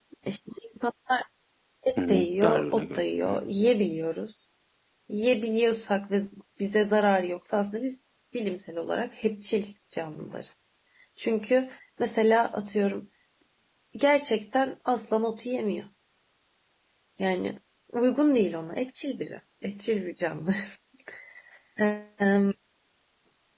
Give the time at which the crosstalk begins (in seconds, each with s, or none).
2.0 s